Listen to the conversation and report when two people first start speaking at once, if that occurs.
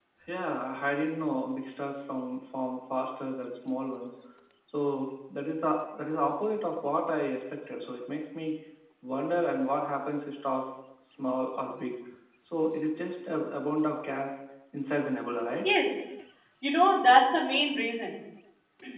none

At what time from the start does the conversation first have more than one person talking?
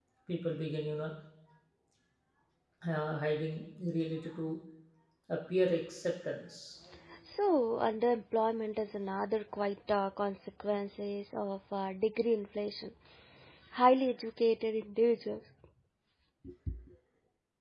none

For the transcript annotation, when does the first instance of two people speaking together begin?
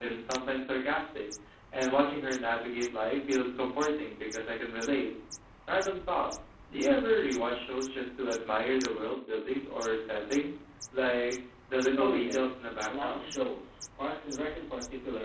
11.9 s

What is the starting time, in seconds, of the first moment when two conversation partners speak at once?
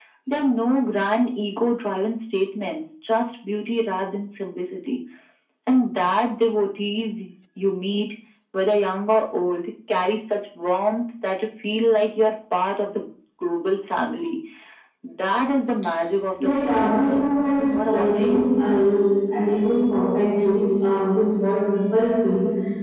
16.4 s

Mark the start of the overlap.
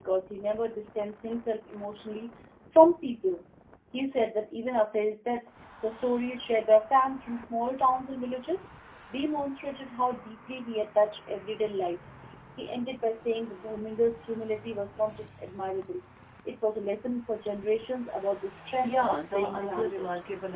18.8 s

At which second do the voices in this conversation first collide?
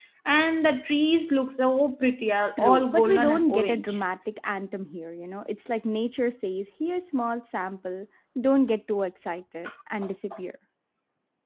2.6 s

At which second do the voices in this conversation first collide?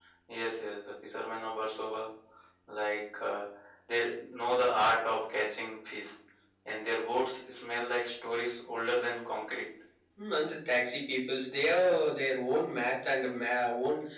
none

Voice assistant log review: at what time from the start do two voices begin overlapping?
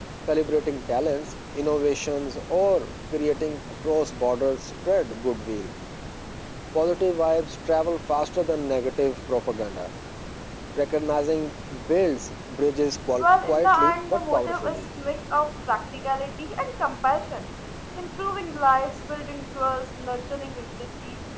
13.2 s

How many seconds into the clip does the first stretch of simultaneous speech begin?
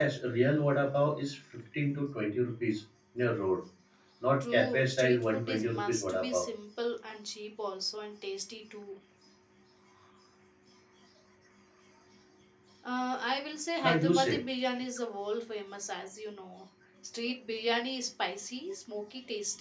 4.4 s

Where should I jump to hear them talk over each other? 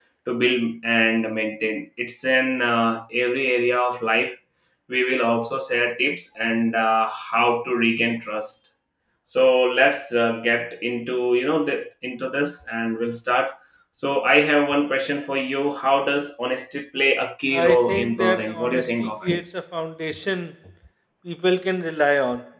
17.5 s

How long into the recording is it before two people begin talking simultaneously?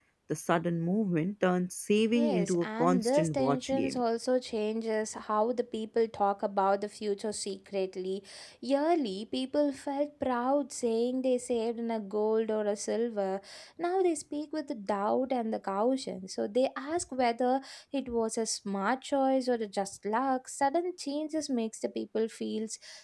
2.1 s

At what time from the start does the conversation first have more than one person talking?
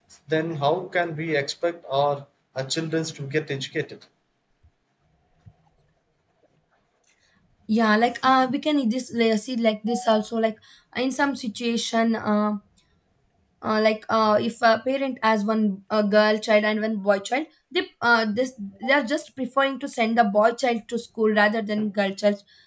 none

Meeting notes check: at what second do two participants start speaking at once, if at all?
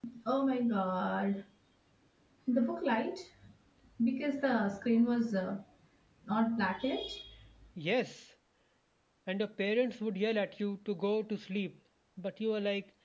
none

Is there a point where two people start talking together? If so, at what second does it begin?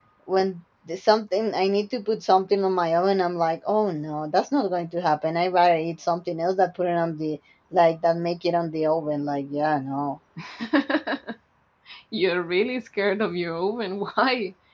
none

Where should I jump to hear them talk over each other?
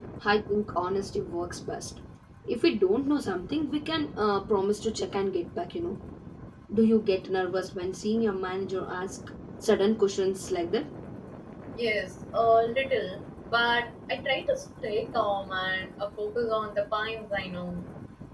none

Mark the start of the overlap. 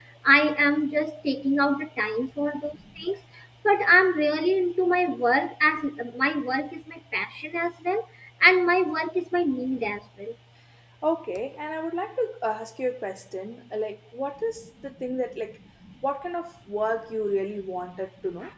none

